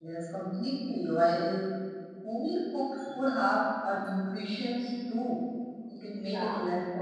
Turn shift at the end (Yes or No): No